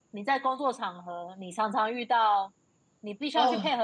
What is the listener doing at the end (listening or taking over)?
listening